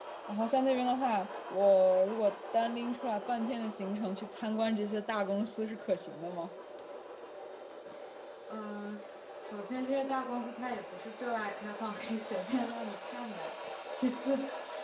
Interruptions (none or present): none